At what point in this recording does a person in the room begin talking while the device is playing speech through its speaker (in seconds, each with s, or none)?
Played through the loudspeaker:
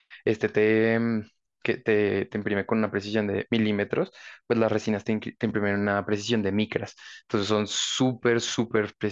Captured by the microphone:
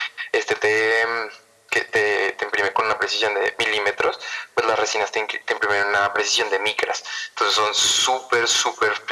none